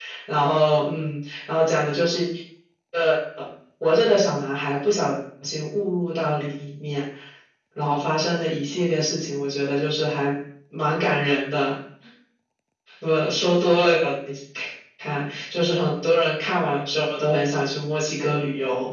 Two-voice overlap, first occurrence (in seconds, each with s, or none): none